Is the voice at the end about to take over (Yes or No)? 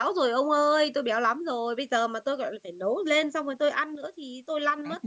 Yes